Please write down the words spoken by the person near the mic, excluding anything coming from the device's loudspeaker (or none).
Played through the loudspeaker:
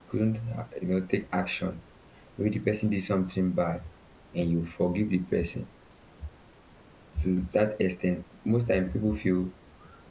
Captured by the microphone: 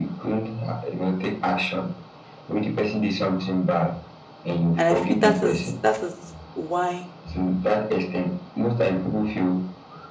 and i feel that is that is why